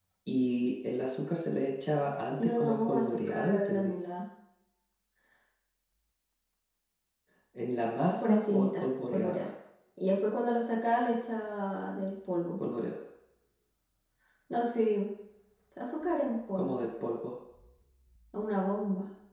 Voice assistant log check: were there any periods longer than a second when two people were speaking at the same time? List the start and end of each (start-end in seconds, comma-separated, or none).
2.4-3.9, 8.1-9.5